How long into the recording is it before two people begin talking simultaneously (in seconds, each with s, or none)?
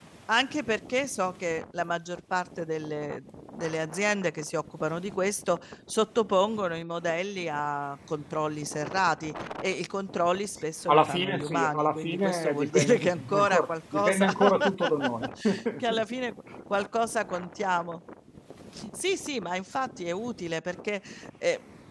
10.9 s